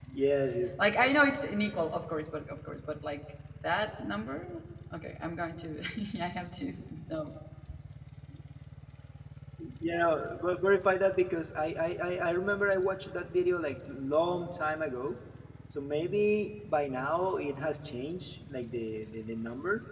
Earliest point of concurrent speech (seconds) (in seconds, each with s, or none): none